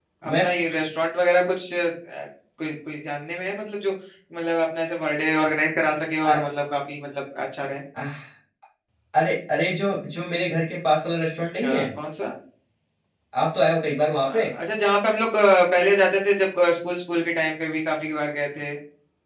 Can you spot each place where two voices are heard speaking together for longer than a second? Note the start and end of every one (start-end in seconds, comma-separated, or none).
none